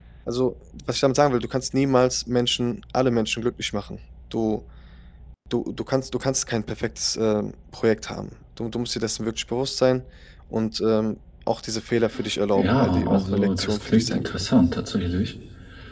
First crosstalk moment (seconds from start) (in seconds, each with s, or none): 12.6 s